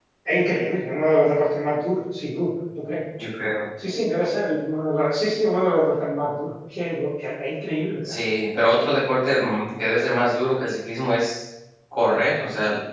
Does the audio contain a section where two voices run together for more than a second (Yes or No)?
No